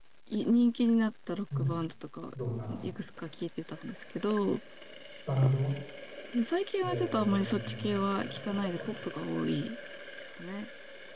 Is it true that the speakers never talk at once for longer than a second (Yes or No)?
No